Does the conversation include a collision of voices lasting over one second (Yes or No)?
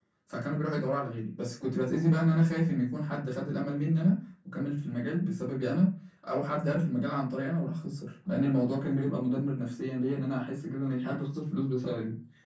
No